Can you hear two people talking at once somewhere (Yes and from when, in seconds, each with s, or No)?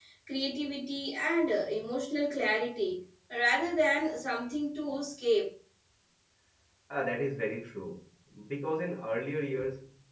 No